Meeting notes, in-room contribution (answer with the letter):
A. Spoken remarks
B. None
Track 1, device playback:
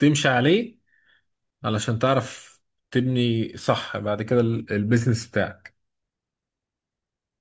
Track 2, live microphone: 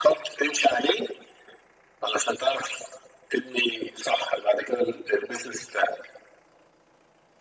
B